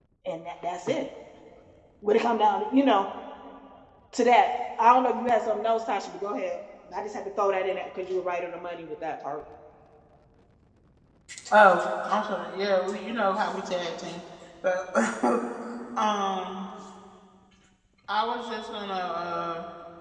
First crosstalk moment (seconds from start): none

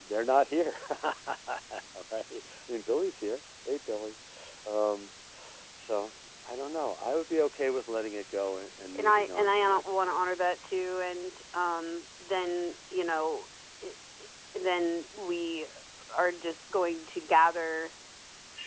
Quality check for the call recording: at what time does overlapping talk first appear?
8.9 s

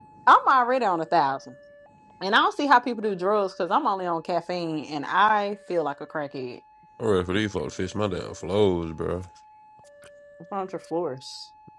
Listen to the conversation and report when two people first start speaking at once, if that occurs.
none

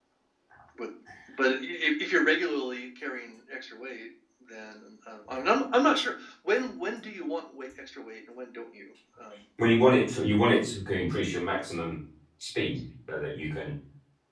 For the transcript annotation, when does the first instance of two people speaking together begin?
none

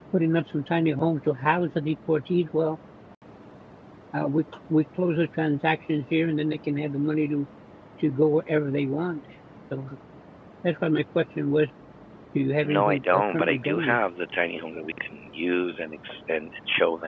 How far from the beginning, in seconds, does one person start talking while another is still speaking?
12.6 s

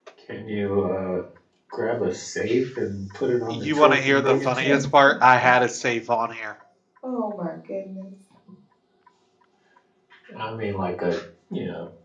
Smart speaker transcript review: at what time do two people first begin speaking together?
3.5 s

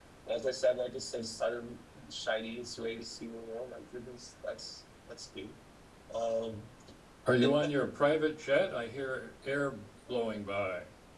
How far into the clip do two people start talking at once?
none

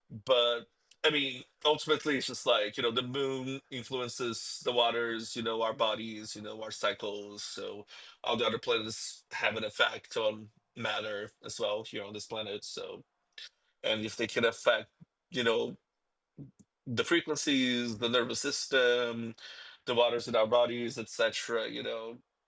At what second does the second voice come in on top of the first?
none

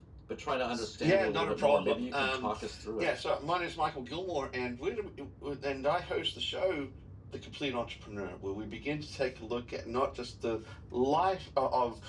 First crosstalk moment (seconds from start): 1.0 s

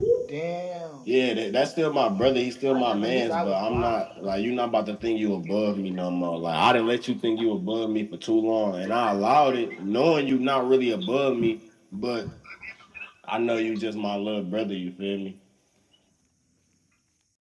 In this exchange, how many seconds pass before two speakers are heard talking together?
2.7 s

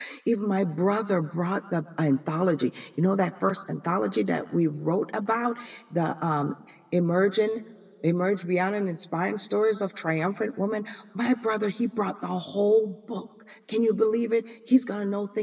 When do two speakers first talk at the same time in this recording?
none

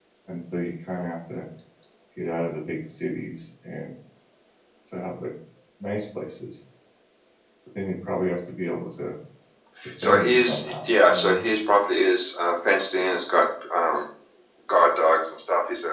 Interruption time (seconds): 10.0 s

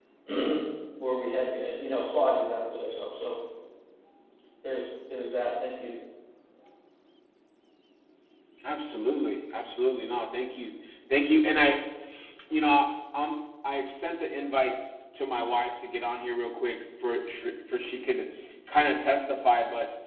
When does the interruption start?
none

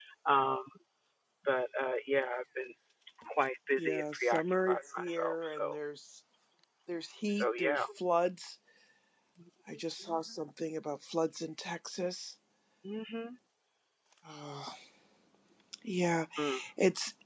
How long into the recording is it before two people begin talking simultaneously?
3.8 s

